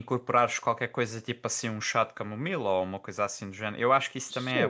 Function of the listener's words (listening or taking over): taking over